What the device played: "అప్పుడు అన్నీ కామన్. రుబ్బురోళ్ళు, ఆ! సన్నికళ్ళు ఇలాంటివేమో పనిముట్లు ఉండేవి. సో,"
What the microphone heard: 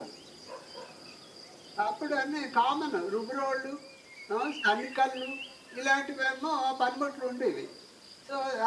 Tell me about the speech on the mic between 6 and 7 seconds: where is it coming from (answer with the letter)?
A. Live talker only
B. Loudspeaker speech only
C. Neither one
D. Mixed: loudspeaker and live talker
B